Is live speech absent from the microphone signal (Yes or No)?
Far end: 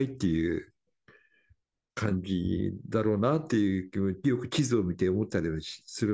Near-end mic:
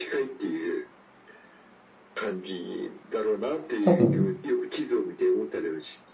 No